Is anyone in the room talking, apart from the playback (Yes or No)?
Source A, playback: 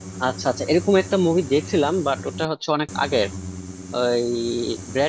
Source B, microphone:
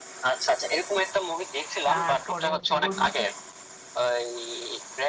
Yes